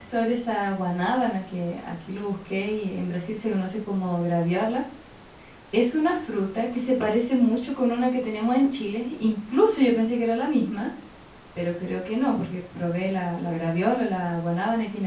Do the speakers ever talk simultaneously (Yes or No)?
No